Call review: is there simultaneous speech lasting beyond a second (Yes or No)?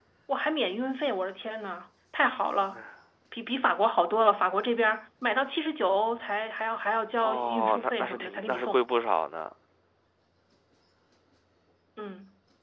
Yes